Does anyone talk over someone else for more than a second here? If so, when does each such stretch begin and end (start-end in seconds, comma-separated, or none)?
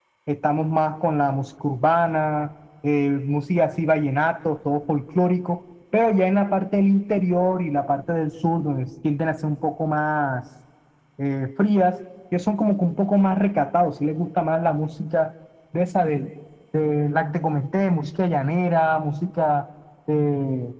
none